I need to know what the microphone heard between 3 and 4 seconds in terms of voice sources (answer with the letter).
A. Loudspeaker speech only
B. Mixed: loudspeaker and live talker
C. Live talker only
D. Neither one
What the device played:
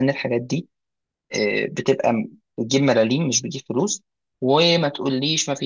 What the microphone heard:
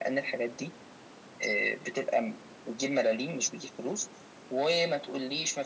A